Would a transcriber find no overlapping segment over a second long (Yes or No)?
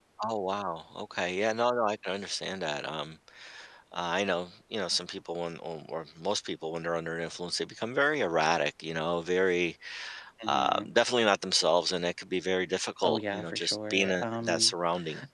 No